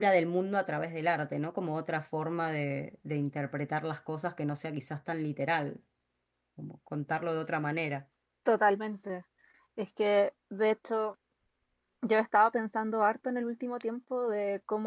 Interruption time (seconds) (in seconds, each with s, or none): none